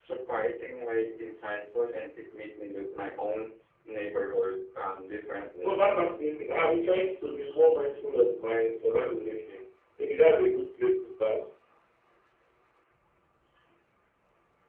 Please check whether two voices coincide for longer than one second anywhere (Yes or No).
No